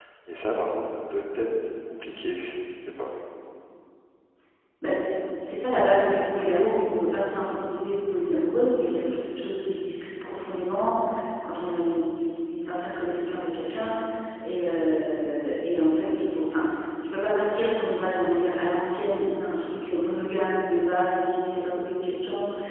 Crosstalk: none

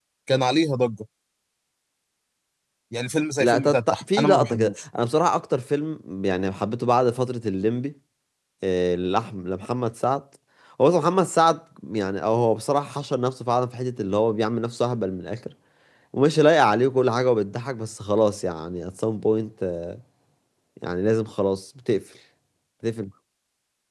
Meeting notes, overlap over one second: present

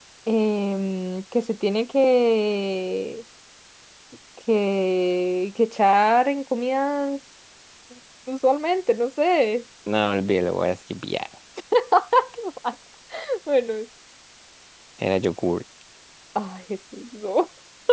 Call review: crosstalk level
none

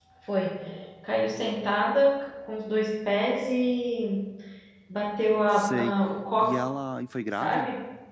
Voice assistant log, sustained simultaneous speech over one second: none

